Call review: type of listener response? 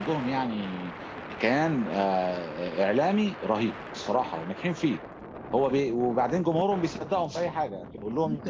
taking over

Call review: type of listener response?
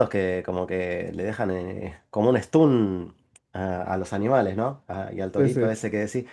listening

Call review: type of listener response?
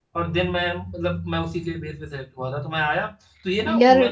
listening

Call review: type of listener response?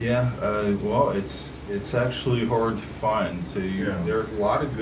listening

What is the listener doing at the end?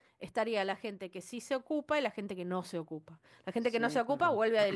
listening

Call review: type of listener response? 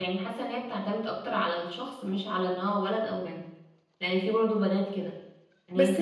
taking over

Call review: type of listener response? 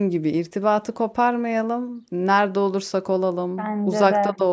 listening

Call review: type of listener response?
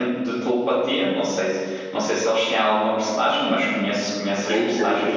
taking over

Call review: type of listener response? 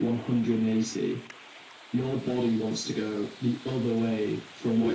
listening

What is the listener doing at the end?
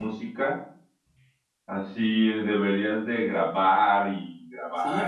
taking over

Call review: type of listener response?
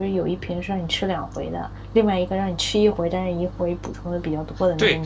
taking over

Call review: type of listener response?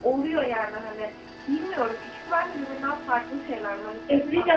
taking over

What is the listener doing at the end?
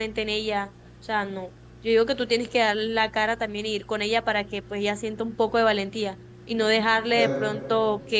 listening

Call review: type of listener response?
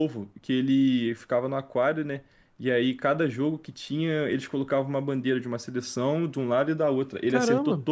listening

